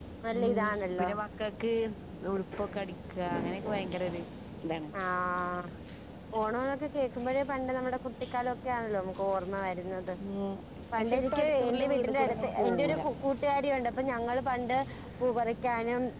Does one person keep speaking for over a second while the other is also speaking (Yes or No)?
Yes